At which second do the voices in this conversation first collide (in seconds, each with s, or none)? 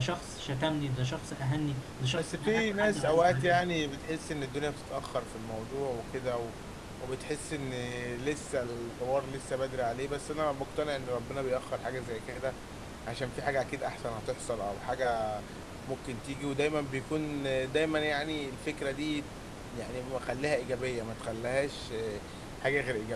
2.2 s